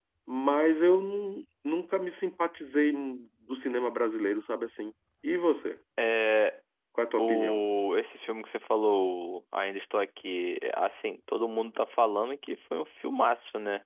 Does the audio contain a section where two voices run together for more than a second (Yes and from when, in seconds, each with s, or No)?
No